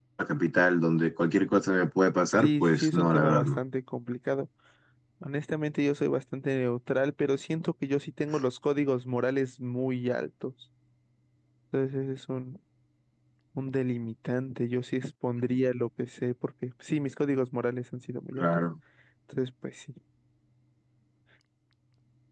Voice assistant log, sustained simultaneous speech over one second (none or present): present